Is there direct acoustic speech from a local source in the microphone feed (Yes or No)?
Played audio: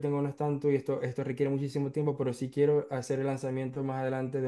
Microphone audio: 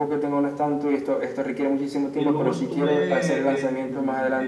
Yes